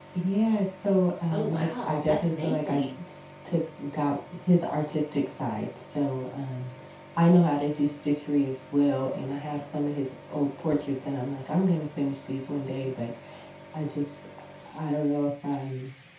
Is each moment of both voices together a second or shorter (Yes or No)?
No